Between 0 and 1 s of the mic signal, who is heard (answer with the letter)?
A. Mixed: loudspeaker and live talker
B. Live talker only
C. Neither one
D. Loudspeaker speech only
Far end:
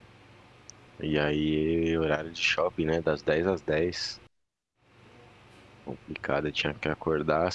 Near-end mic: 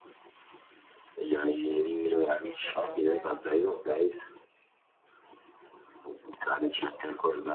C